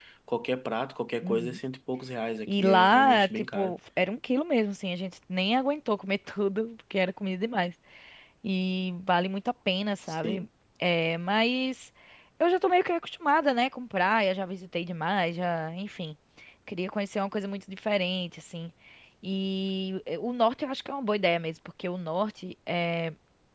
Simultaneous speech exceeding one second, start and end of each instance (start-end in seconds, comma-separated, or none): 2.5-3.8